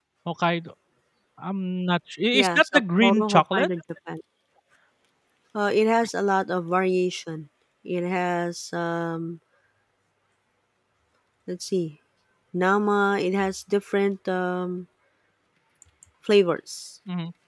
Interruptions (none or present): present